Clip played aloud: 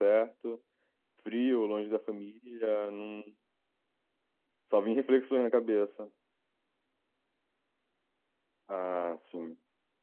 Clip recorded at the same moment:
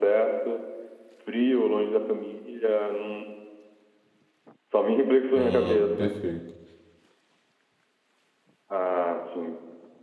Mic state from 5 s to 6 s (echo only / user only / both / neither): both